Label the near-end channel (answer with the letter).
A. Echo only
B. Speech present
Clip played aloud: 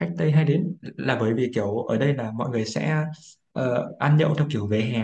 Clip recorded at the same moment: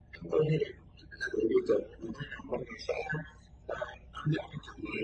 A